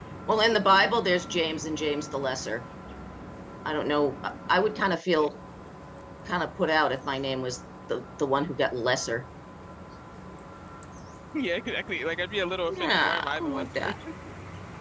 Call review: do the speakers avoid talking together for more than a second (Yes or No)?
No